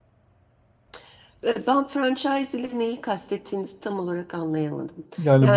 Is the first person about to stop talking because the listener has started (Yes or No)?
Yes